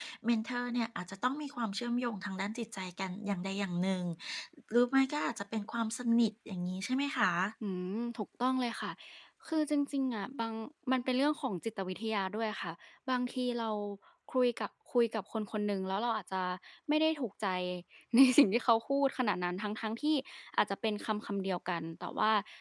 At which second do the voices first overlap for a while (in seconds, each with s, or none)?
none